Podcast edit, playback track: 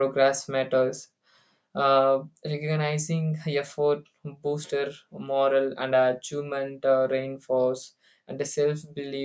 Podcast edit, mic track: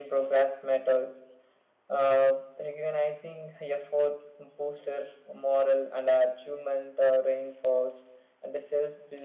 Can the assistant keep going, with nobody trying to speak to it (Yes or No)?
Yes